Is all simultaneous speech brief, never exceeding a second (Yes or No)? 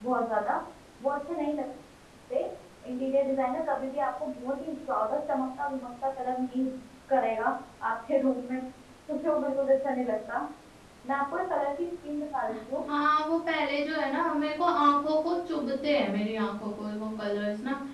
Yes